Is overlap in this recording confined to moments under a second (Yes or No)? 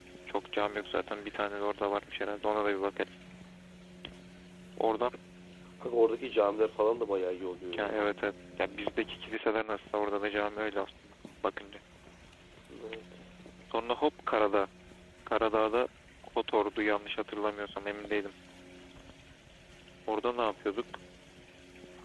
Yes